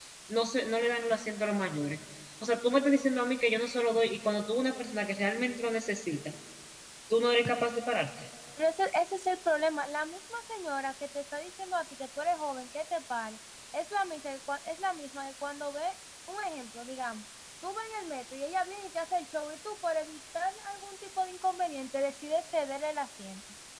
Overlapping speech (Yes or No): No